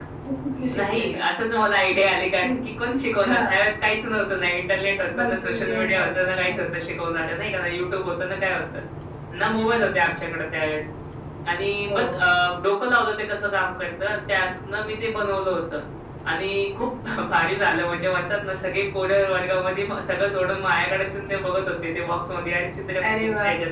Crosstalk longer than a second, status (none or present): present